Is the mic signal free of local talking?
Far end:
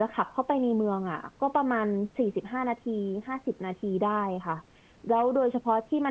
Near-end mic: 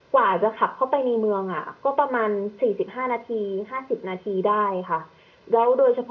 Yes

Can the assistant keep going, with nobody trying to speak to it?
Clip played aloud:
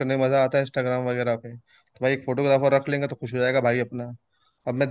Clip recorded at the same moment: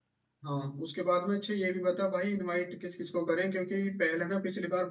No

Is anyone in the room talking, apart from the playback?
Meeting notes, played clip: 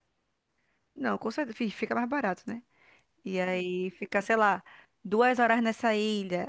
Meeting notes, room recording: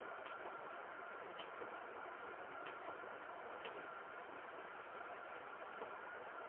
No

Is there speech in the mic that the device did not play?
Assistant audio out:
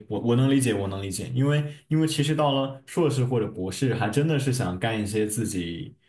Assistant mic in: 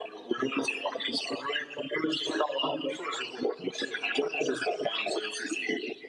No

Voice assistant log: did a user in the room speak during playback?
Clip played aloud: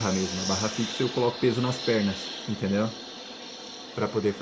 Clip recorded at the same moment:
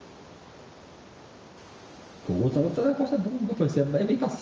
Yes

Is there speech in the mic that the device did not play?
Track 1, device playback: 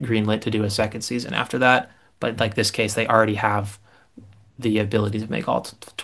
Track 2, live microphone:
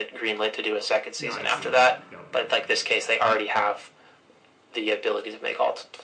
Yes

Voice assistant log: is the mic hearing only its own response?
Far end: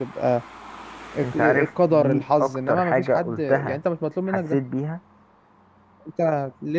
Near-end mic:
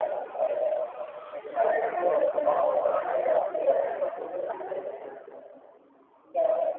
Yes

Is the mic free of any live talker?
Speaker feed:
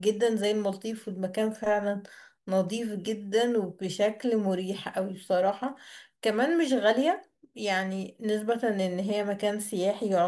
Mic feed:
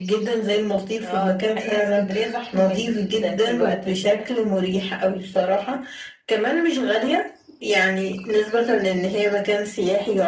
No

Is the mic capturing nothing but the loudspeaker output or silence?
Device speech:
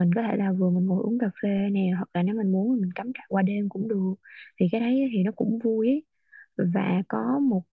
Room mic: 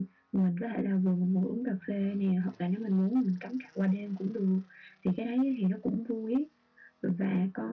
Yes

